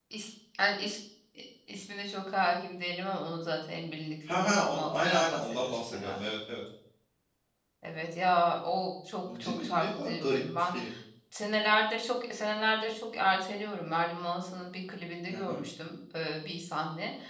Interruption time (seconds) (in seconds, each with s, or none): 4.3 s